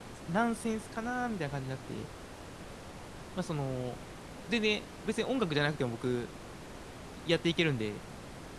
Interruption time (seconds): none

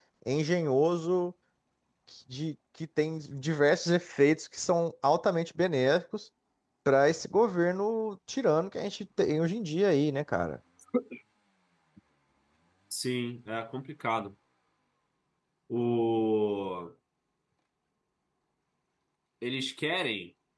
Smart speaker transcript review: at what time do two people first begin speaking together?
none

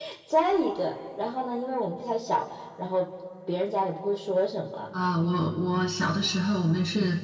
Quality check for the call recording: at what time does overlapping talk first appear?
none

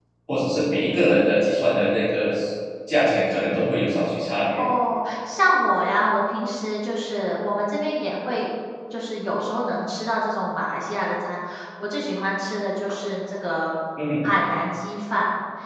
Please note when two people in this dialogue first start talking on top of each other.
none

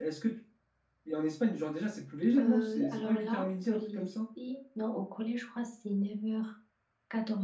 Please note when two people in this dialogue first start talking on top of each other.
2.4 s

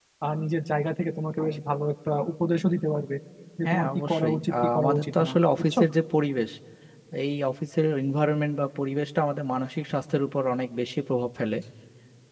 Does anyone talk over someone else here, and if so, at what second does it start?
3.6 s

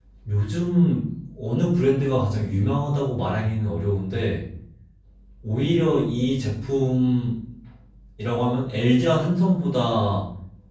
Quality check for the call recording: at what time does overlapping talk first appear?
none

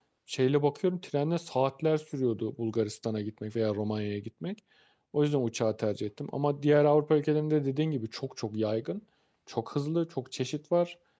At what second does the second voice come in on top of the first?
none

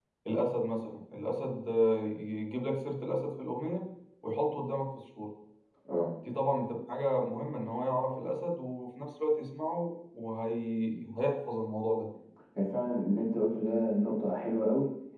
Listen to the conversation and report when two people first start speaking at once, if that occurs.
none

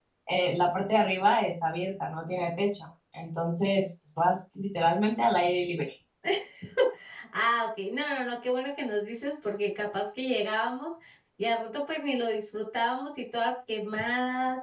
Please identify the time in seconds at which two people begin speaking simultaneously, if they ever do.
none

